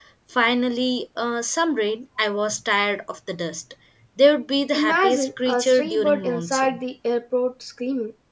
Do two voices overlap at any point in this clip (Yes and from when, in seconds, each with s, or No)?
Yes, from 4.7 s